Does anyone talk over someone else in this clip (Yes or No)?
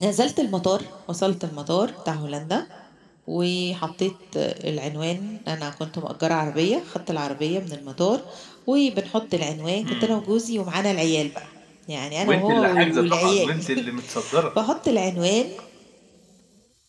Yes